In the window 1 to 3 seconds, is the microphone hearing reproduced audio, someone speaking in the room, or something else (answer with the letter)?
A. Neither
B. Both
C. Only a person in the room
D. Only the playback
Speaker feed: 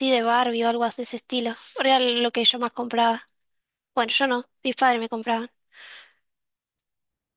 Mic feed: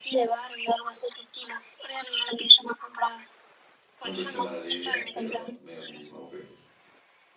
D